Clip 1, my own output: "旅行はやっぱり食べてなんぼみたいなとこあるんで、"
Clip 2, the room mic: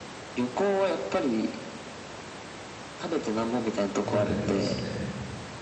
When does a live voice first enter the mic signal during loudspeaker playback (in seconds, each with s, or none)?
4.0 s